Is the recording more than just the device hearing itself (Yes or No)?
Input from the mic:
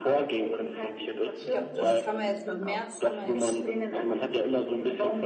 Yes